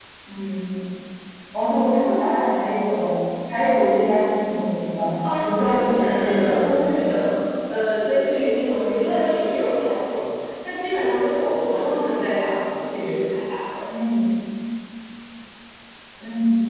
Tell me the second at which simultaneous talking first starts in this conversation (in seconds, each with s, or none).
5.2 s